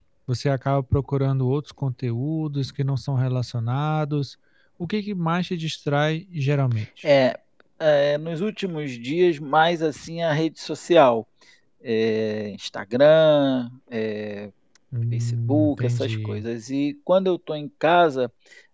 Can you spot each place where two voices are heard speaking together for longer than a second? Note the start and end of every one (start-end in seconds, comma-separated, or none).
15.1-16.4